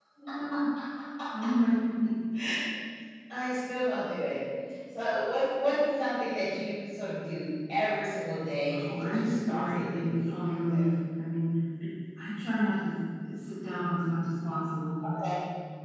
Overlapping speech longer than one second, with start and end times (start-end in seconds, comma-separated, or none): 8.7-10.8